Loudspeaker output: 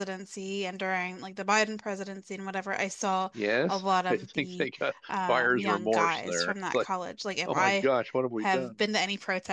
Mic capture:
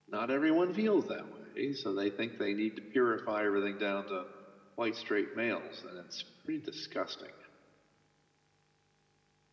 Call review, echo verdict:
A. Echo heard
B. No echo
B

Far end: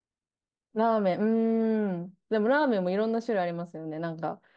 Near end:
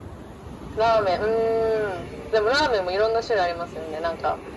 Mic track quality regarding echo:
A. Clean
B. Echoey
B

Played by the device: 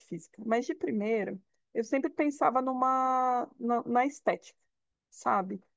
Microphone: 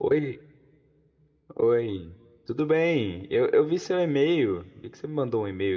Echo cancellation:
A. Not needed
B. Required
A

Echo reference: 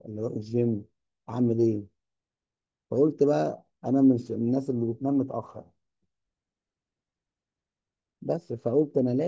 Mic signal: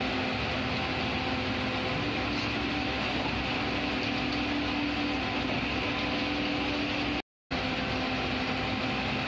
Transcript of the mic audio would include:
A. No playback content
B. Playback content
A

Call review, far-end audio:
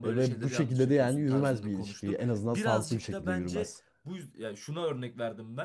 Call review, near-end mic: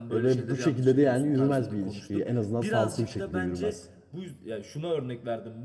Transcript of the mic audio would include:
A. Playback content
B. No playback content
A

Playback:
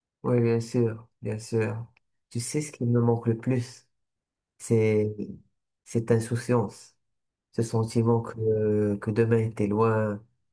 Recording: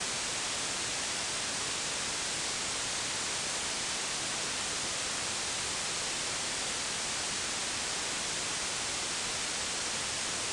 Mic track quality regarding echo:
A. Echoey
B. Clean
B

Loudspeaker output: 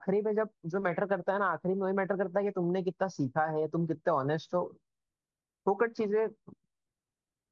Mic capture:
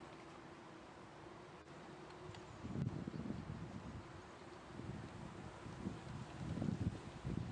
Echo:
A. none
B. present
A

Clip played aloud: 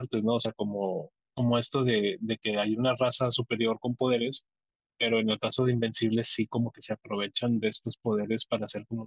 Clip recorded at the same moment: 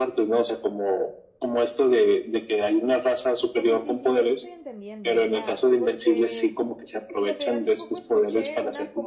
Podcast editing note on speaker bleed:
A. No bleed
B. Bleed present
B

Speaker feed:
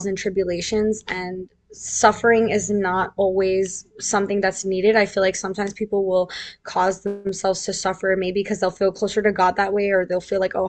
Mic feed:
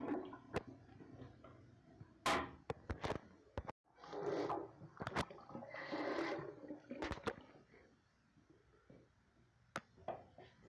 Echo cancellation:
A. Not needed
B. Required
A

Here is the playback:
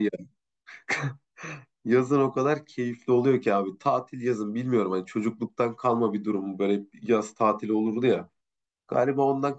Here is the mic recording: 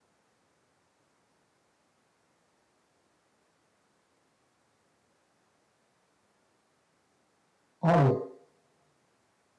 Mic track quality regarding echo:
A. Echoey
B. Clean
B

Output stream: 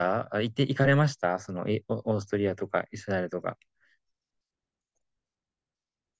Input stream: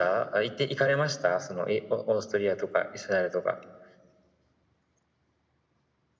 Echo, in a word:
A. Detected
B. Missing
A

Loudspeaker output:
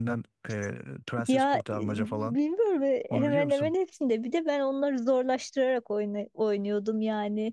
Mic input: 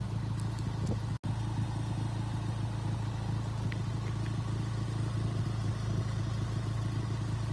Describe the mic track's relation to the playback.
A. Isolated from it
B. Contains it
A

